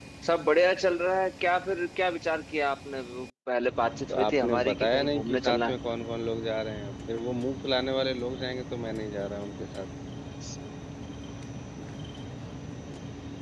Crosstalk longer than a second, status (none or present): present